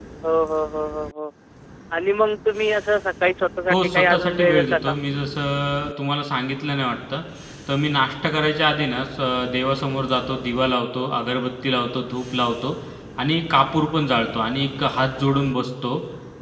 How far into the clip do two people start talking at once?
3.7 s

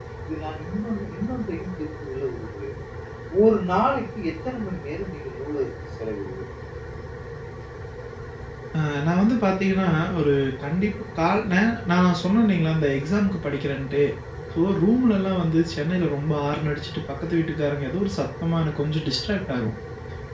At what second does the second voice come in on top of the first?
none

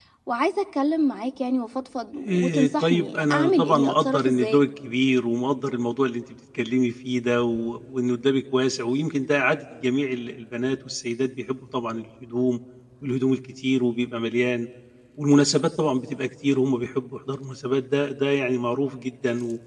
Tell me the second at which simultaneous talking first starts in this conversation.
2.1 s

